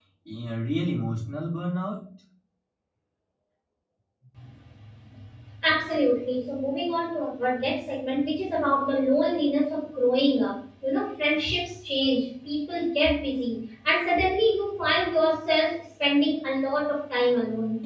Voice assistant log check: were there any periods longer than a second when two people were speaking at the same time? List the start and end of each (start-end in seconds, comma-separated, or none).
none